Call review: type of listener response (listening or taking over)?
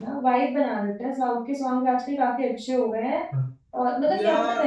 listening